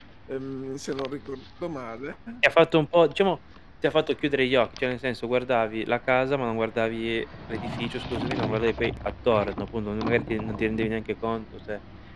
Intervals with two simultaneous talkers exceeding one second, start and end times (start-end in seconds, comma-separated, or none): none